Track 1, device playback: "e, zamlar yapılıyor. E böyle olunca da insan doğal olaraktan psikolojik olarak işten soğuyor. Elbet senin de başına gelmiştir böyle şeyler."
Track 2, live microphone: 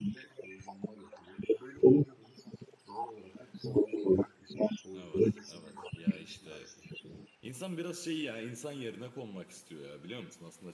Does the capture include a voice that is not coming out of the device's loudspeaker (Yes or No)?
Yes